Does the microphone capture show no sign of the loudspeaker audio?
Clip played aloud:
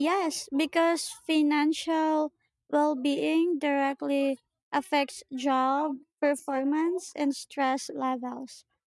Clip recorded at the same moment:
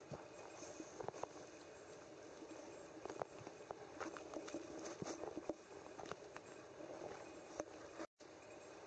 Yes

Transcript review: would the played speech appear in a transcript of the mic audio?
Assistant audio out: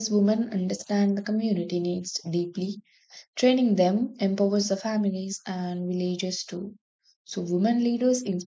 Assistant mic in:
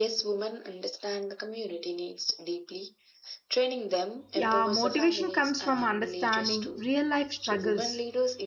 Yes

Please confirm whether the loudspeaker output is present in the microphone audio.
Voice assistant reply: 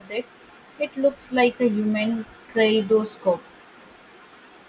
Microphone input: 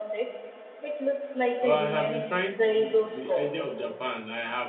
Yes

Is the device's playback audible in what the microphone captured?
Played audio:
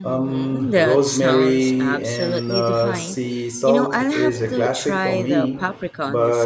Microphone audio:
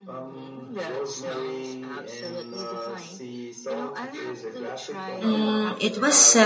Yes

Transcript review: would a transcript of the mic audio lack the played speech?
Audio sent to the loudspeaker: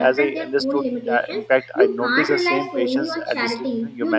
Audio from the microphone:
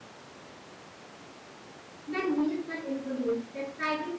Yes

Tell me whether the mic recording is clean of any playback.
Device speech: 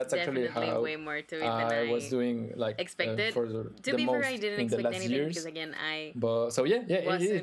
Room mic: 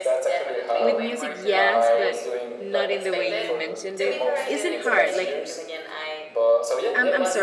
No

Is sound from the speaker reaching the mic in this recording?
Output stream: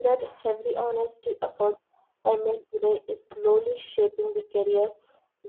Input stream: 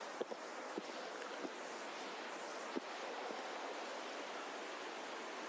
No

